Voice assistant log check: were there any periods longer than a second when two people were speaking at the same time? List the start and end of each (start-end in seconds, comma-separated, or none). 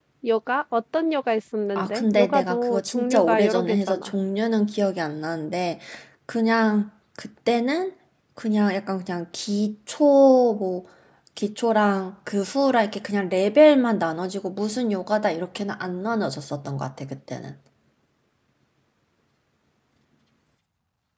1.8-4.1